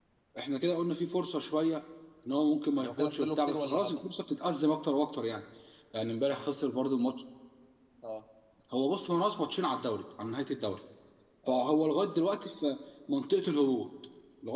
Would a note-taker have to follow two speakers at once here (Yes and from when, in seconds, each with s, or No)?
Yes, from 2.8 s